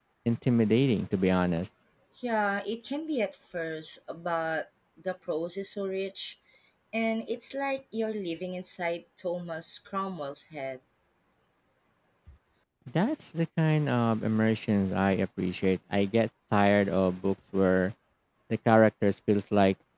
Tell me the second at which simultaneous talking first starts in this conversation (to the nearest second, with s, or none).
none